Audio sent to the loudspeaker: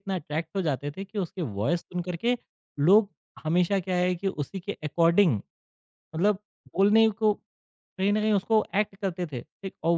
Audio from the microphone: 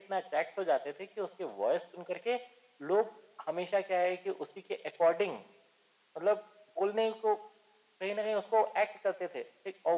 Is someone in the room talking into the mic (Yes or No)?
No